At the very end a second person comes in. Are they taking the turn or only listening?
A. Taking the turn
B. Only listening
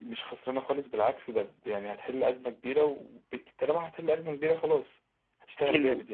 A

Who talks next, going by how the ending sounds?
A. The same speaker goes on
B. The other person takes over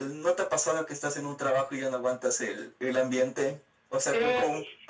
A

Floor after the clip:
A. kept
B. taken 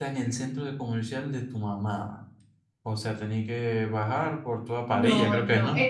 B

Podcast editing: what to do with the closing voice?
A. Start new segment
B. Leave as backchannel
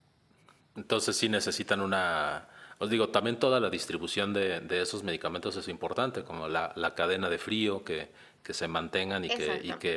B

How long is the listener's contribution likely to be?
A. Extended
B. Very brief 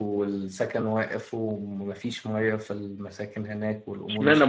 A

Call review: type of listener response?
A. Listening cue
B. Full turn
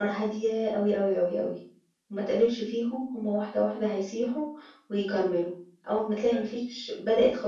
A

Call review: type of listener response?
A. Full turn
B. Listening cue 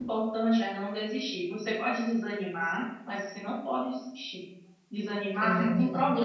B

